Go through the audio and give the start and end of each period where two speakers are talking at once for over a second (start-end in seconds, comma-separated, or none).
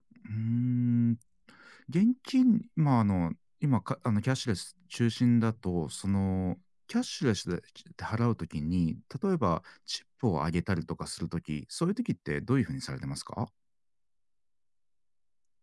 none